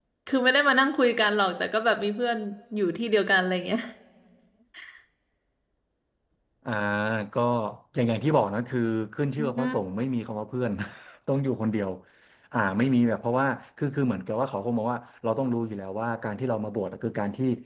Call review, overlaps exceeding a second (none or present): none